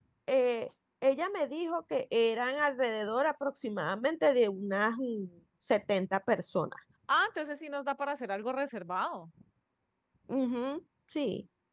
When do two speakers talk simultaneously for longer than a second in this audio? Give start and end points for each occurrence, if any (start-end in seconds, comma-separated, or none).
none